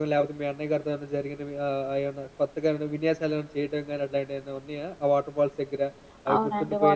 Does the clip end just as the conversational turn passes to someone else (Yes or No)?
Yes